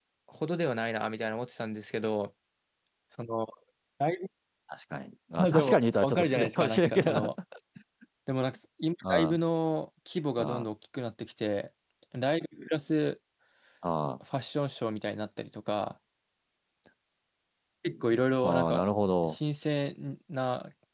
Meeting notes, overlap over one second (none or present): present